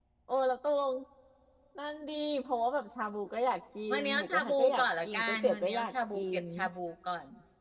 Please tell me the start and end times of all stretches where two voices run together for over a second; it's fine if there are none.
3.9-6.4

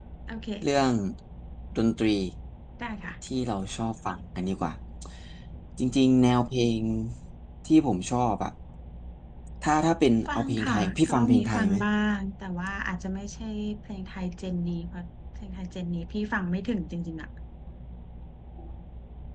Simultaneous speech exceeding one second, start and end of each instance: 10.4-11.8

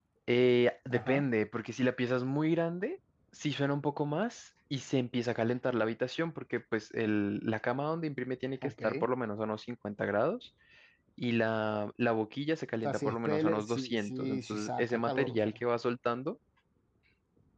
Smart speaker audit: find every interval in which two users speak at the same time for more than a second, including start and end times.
12.8-15.6

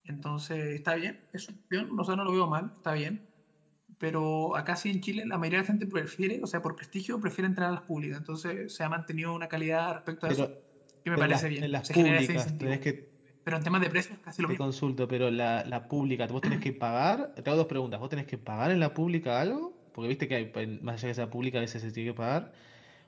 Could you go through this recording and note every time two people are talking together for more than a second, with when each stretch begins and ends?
11.2-12.8

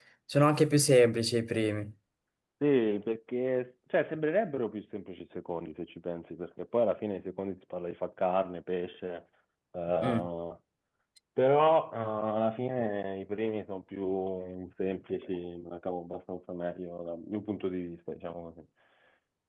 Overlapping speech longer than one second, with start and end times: none

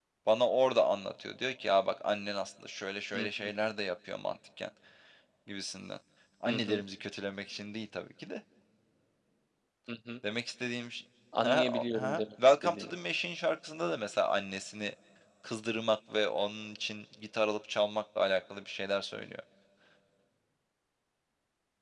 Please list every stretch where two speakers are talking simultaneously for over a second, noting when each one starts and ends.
11.4-12.9

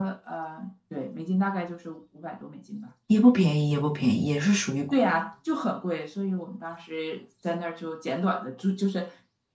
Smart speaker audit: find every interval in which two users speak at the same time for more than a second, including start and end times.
none

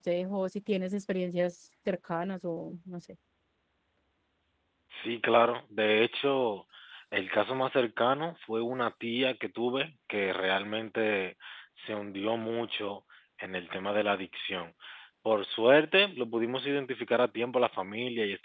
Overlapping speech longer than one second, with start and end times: none

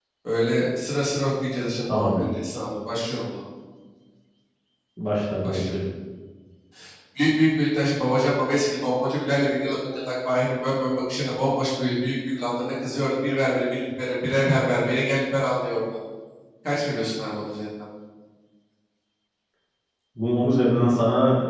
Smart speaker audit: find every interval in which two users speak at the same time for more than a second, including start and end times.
none

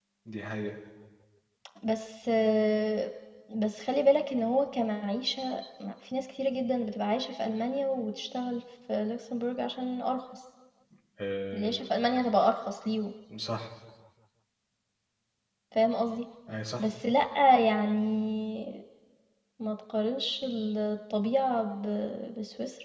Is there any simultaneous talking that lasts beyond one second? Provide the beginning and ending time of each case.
none

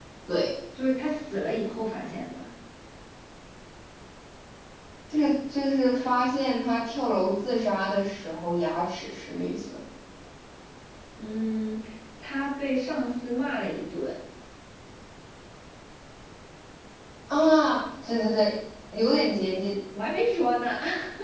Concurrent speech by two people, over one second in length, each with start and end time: none

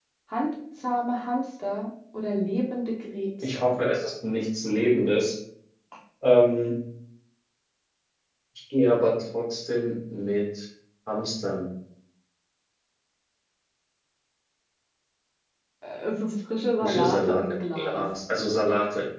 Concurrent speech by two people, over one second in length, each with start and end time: 16.8-18.1

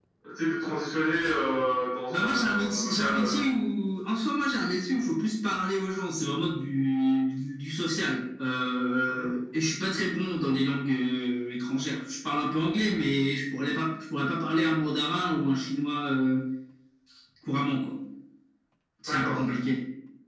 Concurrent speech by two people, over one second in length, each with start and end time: 2.1-3.4

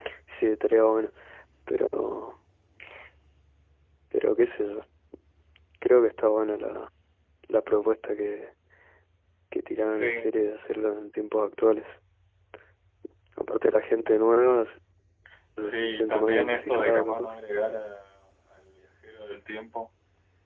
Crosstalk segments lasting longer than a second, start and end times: 15.7-17.3

